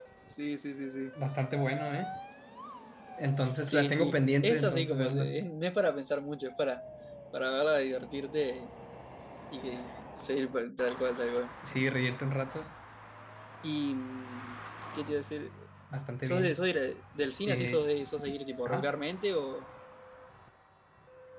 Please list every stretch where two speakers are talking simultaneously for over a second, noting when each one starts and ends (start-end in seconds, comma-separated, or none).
3.6-5.3